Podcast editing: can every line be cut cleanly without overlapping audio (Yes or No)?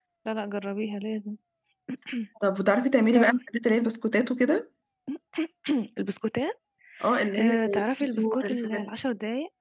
No